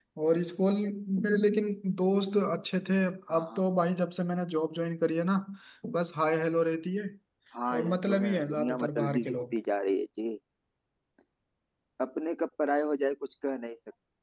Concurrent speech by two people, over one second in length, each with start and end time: 7.7-9.5

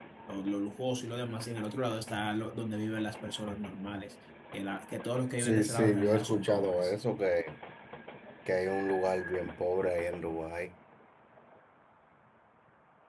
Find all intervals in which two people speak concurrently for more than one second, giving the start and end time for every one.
5.4-6.9

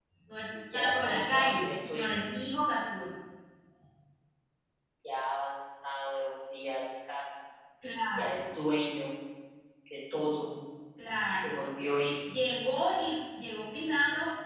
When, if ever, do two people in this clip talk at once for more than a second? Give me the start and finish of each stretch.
0.7-2.1

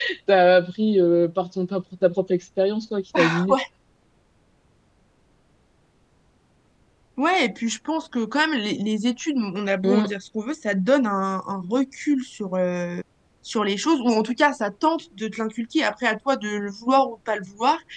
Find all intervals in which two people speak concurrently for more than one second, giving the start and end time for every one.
none

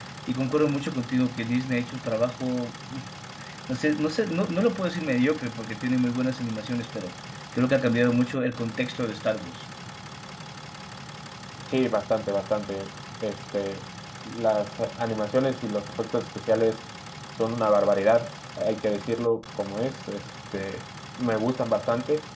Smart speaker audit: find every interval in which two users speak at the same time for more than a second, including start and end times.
none

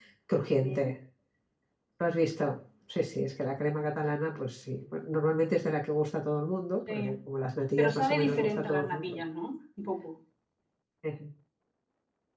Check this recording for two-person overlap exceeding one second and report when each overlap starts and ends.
7.8-9.0

